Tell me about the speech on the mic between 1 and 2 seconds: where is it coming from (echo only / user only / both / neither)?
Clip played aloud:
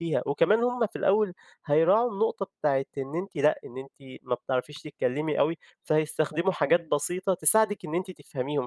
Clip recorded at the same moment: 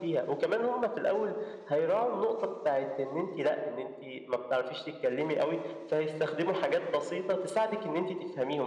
echo only